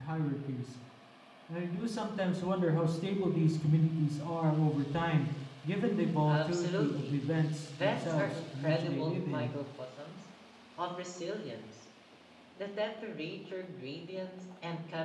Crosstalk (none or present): present